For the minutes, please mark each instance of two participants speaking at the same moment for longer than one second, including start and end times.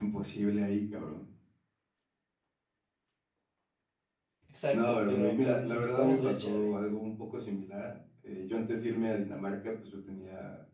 4.7-6.7

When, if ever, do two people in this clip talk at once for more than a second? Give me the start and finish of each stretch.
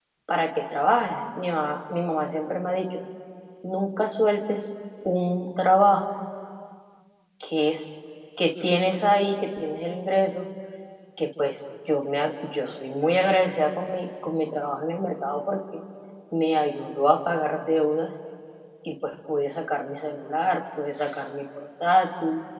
none

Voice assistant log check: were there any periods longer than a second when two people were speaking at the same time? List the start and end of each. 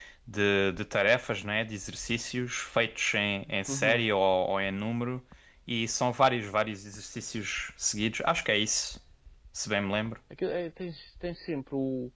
none

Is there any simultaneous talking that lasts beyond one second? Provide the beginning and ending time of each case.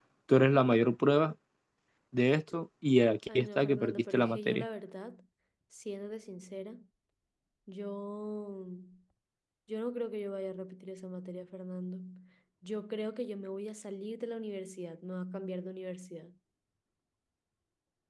3.4-4.6

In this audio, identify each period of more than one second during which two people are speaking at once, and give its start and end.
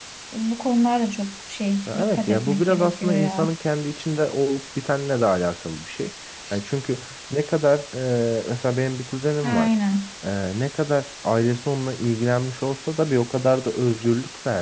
1.9-3.5

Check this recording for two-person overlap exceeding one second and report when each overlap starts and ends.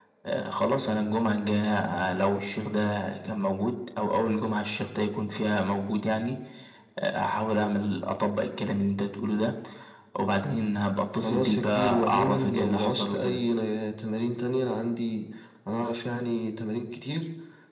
11.2-13.4

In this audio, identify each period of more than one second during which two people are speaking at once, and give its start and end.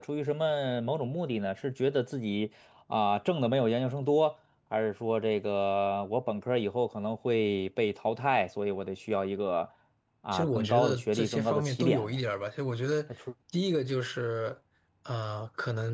10.3-12.2

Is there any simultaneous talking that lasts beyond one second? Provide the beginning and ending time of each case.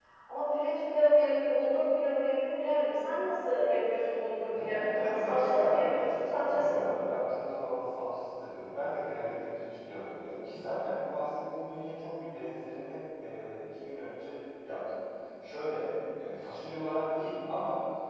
4.6-6.9

